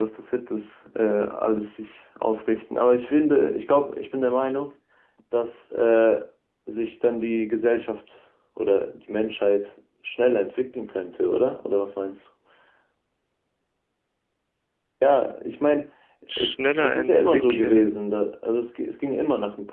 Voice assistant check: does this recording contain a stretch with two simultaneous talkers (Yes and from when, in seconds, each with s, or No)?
Yes, from 16.4 s